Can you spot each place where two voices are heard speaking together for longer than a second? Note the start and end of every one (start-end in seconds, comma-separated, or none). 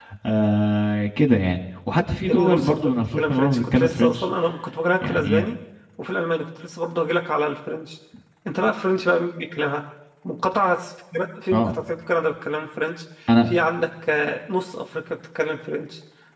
2.3-4.3